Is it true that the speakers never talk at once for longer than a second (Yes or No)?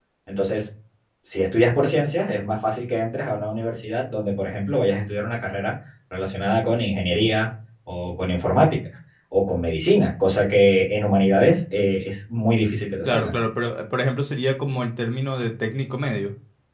Yes